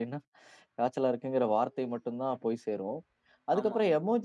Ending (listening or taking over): listening